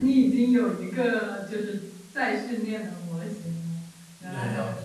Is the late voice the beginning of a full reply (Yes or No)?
Yes